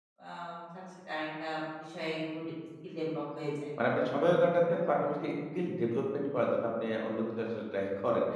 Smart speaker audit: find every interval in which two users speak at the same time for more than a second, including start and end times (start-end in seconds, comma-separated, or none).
none